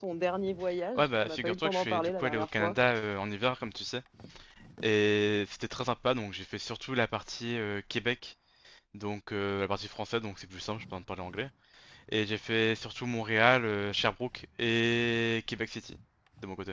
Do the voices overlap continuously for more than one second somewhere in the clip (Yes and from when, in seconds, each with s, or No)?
Yes, from 0.9 s